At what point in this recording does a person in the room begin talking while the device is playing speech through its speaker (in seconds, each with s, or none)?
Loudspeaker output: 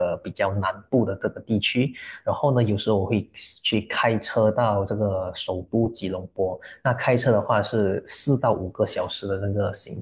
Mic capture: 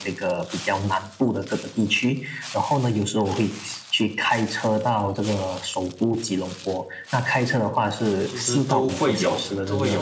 8.2 s